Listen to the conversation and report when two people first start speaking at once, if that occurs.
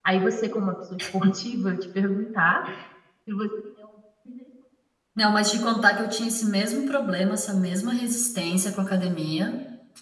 none

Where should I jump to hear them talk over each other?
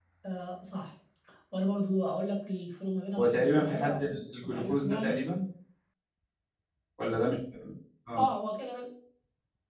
3.2 s

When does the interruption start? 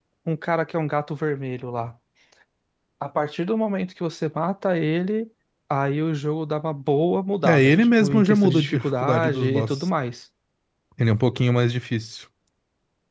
7.4 s

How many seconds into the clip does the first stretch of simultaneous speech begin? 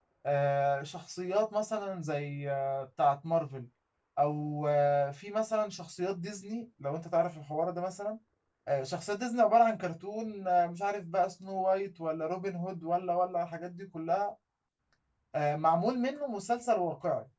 none

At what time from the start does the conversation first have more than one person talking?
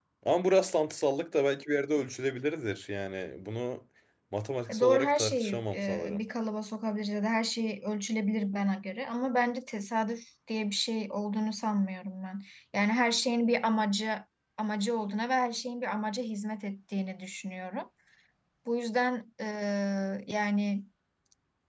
4.7 s

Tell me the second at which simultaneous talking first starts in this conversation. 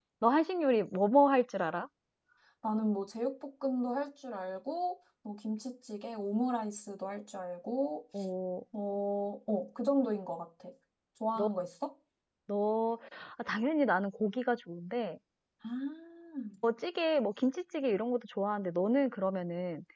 none

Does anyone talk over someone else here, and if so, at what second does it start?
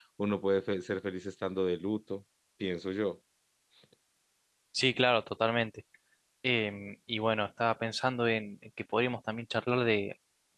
none

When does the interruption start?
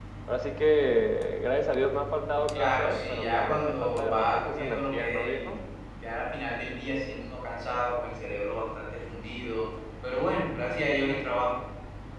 2.5 s

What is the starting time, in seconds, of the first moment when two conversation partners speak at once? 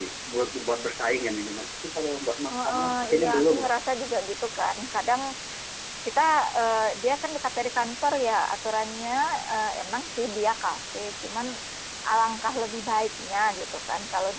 2.5 s

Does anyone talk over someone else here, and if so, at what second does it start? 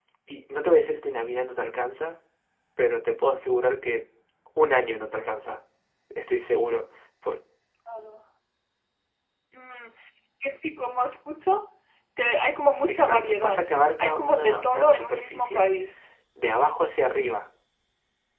12.8 s

